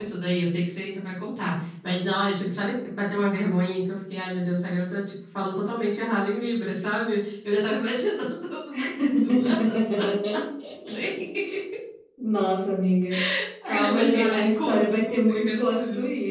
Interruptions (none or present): present